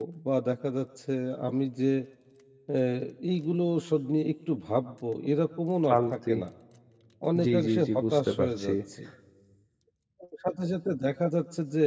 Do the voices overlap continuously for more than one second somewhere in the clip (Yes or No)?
Yes